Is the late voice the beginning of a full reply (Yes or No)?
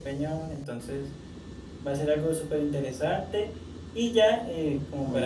No